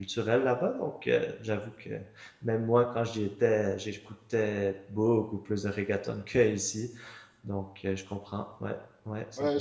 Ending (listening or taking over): taking over